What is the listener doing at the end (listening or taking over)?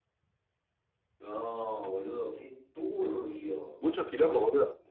taking over